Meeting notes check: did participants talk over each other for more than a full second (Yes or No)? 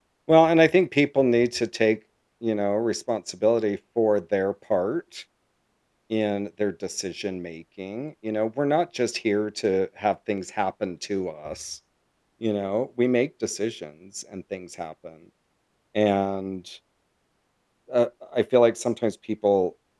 No